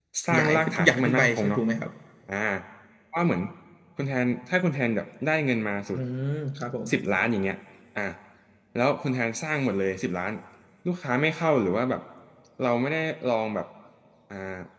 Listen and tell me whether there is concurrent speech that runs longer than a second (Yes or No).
Yes